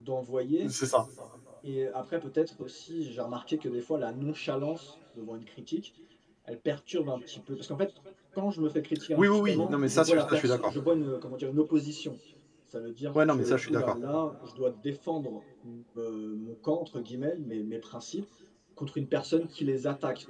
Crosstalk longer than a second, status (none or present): present